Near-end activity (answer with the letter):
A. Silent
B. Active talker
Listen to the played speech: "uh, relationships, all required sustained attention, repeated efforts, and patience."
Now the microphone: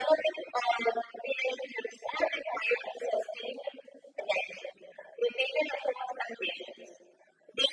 A